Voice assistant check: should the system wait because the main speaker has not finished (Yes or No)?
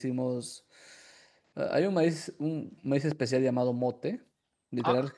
Yes